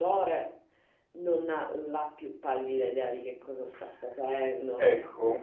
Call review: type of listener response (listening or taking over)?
taking over